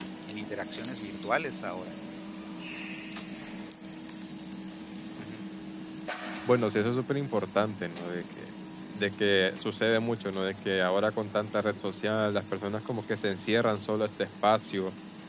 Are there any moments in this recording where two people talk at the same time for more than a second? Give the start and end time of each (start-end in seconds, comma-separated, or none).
none